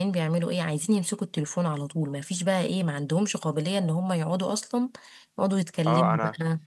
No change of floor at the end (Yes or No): No